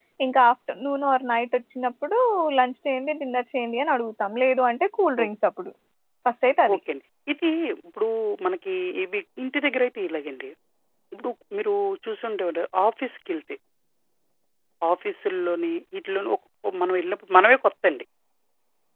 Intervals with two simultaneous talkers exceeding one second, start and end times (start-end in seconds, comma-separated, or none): none